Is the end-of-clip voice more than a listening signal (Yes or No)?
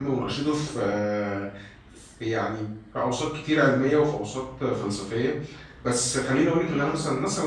No